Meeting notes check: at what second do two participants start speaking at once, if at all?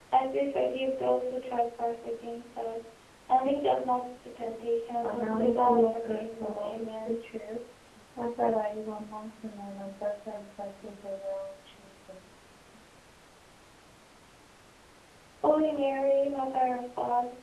5.0 s

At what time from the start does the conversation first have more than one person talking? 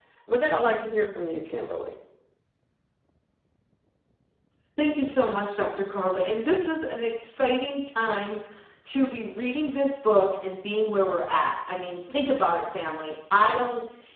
none

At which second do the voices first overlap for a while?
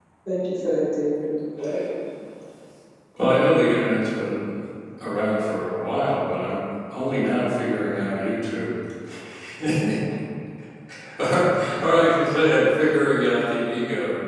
none

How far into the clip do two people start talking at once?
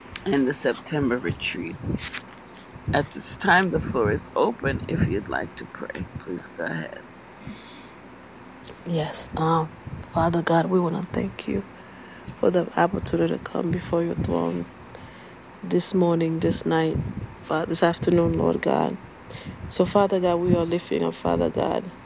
none

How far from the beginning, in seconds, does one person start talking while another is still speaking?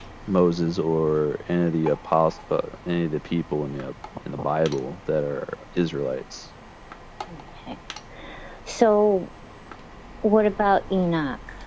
none

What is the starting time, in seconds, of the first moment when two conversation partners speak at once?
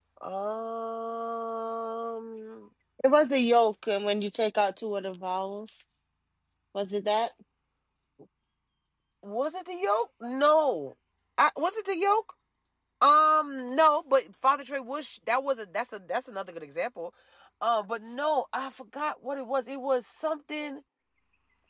none

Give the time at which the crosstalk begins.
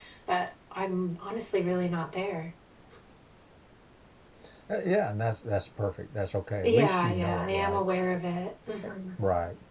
6.6 s

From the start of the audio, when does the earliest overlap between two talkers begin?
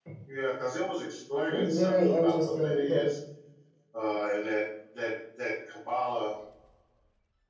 1.5 s

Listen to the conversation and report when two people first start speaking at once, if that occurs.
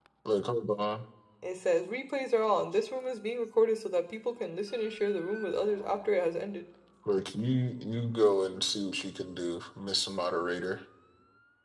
none

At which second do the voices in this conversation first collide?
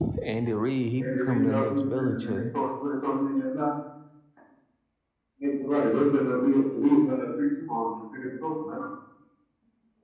1.0 s

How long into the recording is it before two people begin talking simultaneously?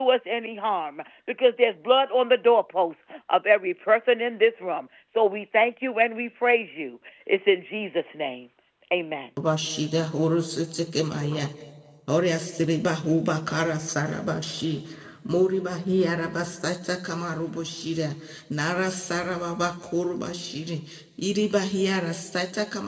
none

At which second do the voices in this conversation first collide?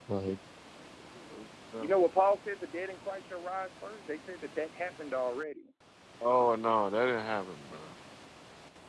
none

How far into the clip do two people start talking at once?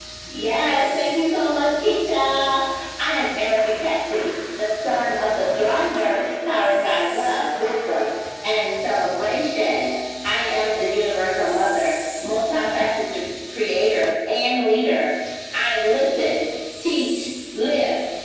none

